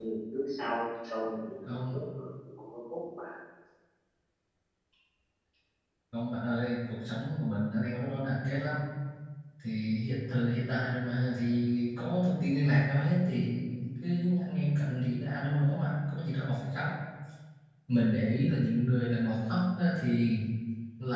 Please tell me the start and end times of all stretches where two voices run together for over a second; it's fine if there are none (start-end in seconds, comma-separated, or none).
none